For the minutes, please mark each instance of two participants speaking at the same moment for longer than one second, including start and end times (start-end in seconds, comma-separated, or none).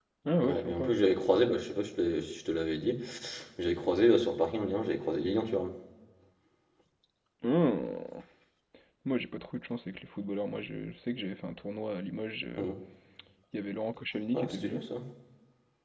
none